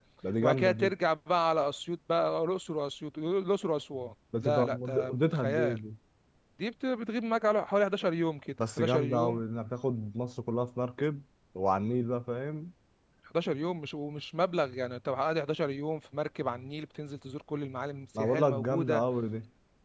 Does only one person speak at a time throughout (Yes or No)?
No